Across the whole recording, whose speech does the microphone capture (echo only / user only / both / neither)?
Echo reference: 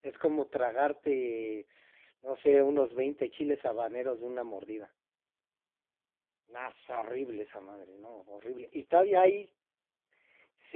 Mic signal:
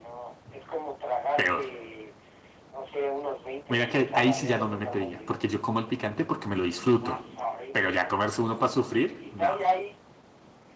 both